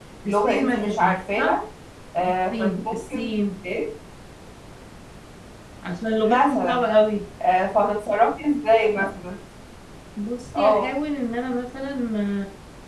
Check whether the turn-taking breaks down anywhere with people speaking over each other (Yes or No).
Yes